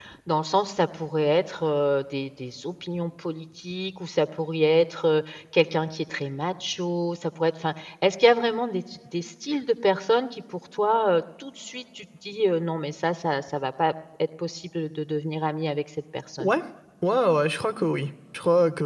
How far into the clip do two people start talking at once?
none

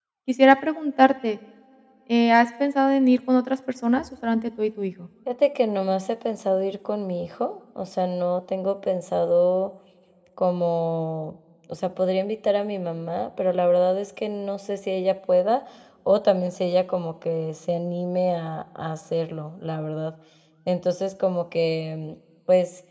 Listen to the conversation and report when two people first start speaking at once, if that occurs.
none

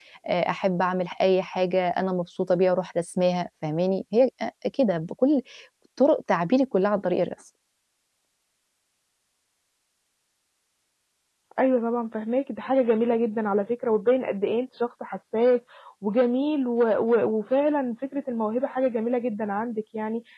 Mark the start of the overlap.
none

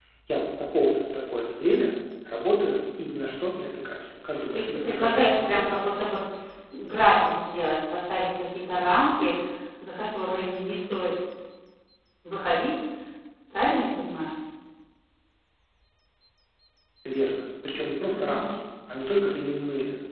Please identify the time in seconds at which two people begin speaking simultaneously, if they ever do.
4 s

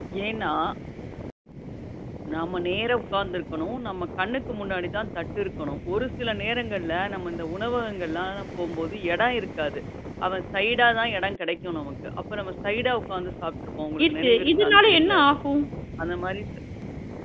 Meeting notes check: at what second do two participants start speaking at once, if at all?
14 s

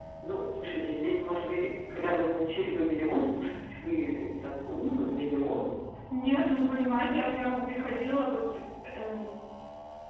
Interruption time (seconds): none

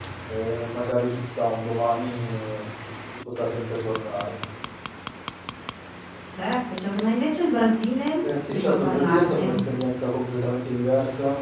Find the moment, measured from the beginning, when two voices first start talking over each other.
8 s

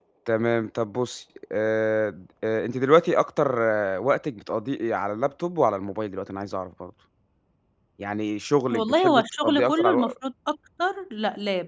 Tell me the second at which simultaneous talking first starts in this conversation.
9 s

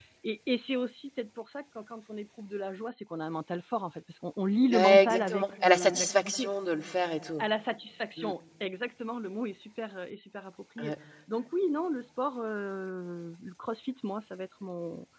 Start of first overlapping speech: 5 s

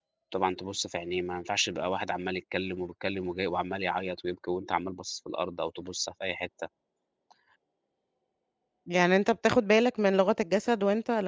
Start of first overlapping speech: none

